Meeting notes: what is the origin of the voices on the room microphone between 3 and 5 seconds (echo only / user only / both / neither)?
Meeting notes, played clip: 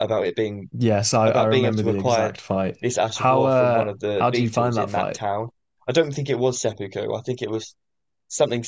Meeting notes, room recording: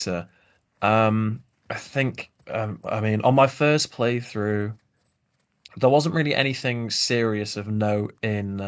user only